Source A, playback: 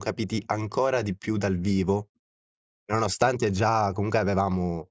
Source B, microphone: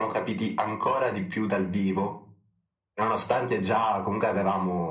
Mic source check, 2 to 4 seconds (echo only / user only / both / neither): echo only